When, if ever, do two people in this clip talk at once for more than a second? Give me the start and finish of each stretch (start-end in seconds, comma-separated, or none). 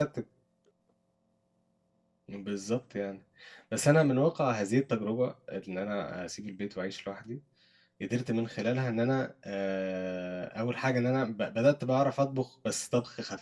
none